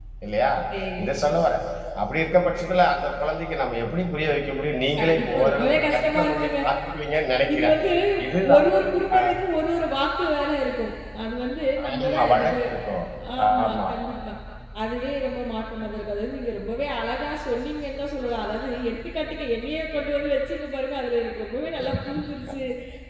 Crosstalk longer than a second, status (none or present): present